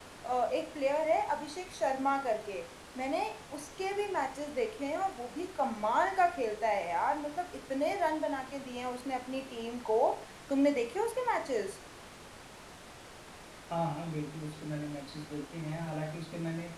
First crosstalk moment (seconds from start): none

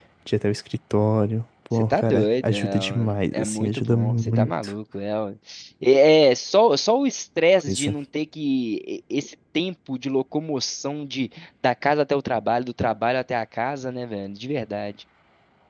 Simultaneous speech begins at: 1.7 s

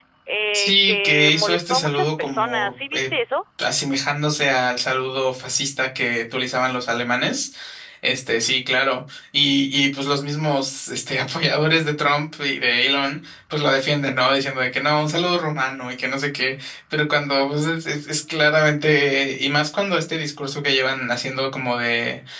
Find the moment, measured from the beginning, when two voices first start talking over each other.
0.5 s

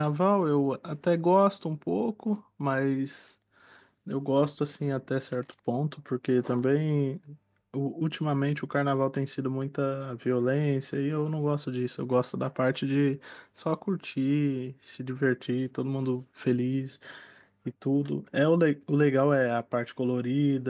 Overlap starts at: none

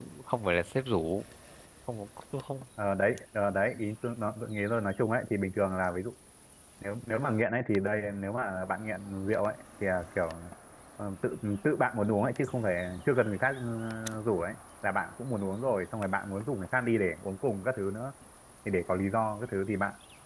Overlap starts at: none

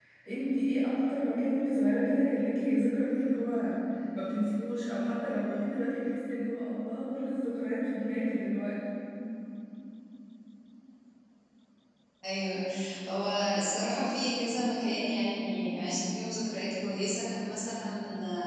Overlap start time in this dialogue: none

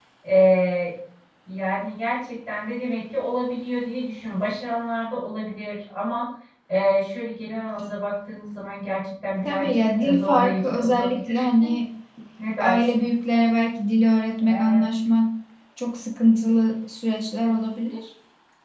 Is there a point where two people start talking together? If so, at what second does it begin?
9.4 s

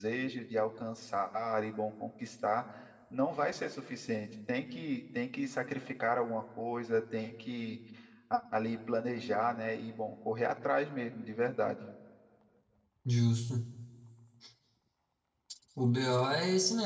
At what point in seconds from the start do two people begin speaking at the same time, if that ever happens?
none

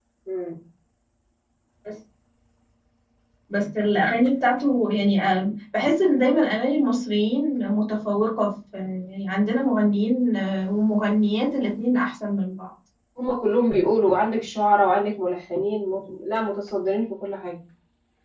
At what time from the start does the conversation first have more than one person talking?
none

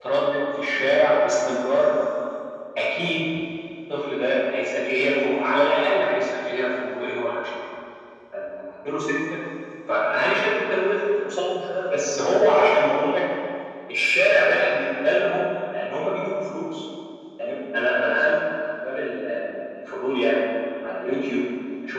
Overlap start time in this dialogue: none

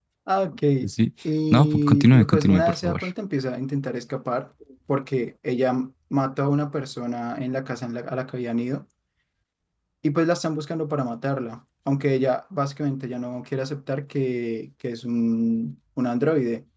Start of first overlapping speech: 1.5 s

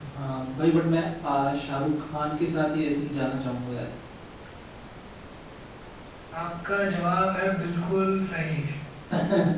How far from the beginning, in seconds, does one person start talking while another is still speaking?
none

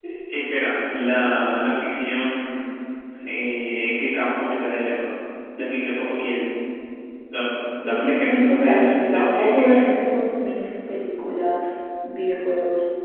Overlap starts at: 7.8 s

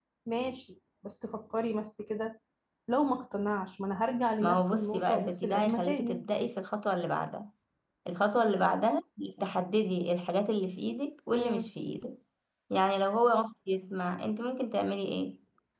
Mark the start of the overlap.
4.4 s

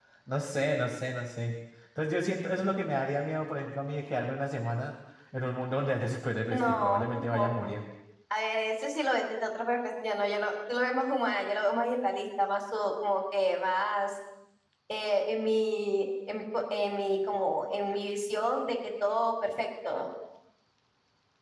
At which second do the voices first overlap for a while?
6.5 s

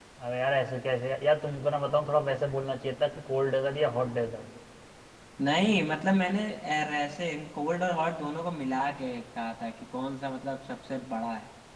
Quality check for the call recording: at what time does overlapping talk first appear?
none

